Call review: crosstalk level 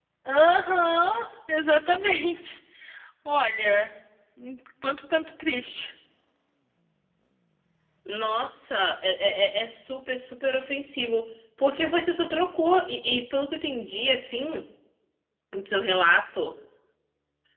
none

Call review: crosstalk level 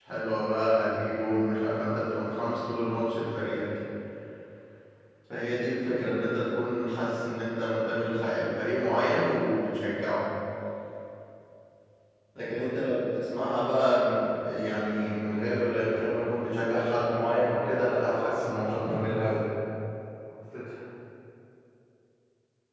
present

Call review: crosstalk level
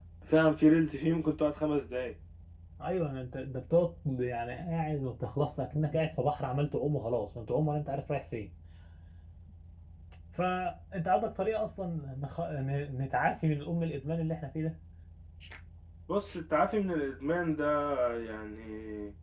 none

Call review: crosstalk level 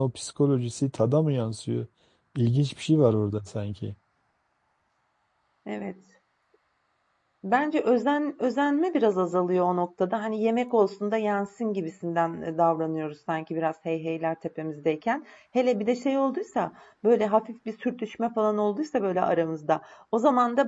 none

